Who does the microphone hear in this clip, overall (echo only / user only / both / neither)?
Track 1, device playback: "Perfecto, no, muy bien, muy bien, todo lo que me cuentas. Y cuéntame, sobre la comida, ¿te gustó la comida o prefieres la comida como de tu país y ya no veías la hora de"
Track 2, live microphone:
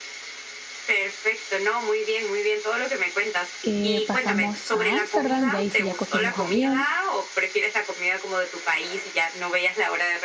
both